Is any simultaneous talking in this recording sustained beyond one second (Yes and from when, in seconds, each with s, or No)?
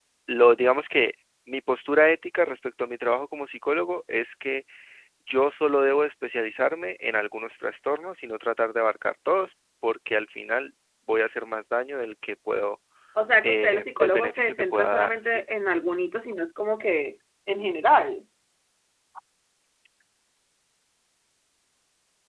Yes, from 13.4 s